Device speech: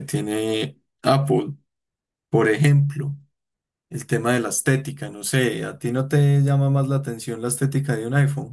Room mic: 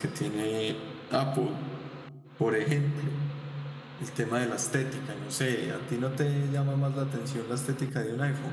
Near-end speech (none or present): none